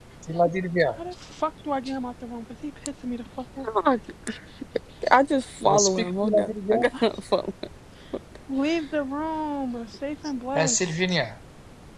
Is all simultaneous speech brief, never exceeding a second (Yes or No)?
No